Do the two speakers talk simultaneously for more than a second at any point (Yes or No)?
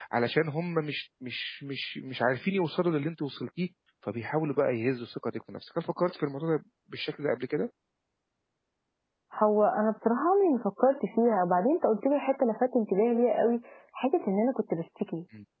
No